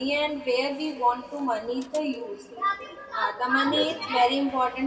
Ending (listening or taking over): listening